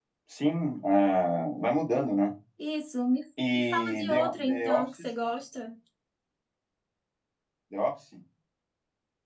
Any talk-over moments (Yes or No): Yes